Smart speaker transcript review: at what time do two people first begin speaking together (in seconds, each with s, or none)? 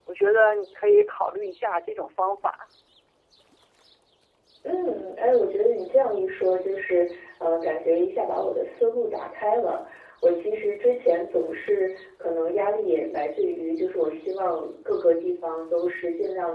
none